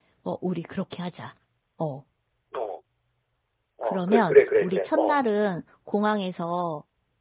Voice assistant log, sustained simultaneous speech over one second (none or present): present